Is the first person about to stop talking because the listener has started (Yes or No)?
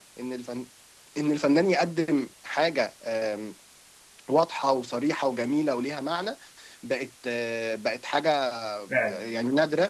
No